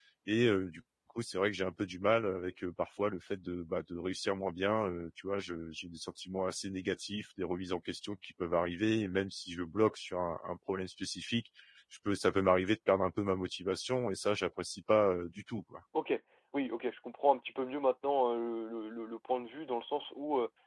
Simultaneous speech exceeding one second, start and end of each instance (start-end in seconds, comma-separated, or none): none